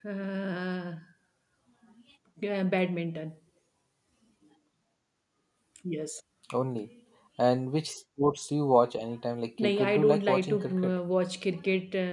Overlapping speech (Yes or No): Yes